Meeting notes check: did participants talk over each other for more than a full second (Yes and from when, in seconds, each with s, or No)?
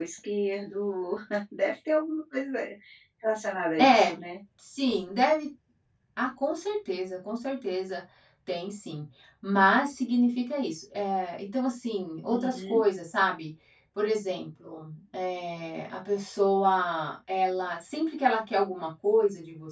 No